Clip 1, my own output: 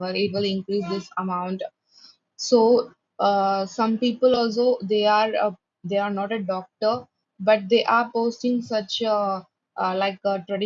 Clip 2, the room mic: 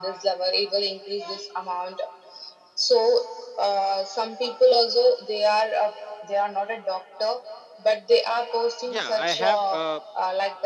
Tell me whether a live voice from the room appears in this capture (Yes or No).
Yes